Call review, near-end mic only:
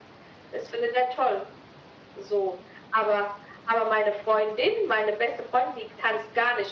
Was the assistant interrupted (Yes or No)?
No